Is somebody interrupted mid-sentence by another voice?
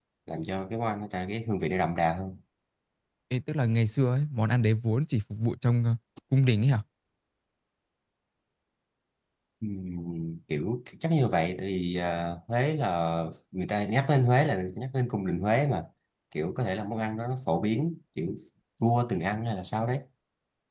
No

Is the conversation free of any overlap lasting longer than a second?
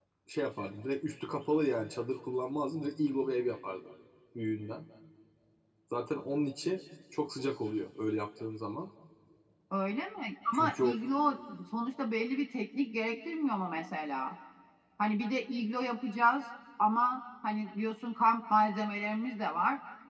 Yes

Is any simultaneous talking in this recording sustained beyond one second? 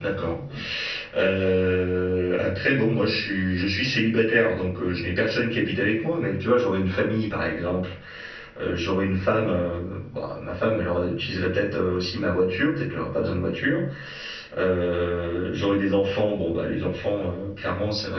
No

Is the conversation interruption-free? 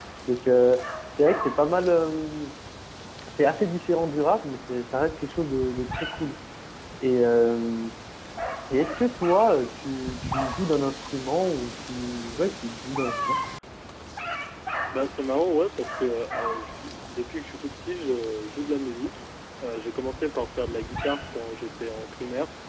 Yes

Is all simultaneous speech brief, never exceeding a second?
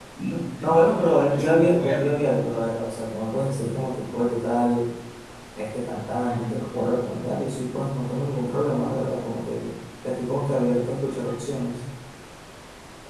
No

